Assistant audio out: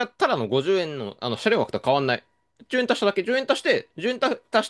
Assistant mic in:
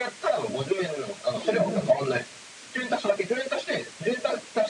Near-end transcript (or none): ついてないね。